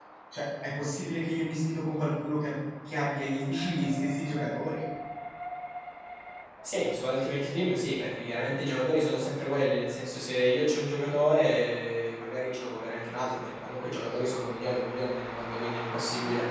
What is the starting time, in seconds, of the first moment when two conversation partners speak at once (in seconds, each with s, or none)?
none